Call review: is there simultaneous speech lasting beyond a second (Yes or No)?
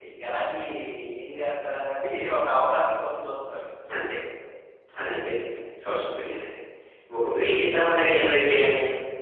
Yes